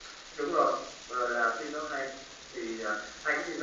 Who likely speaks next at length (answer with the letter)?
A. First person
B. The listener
A